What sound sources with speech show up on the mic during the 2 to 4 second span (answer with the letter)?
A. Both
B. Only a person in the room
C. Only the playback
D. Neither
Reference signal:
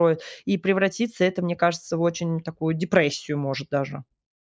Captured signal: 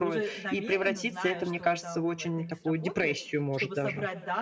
A